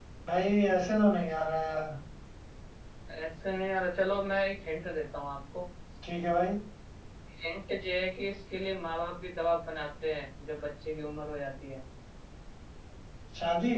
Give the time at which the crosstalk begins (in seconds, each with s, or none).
none